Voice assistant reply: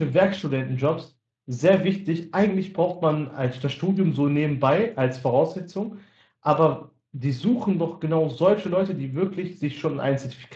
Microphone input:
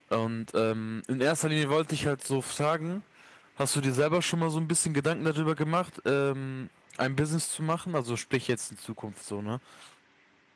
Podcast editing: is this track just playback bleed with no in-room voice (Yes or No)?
No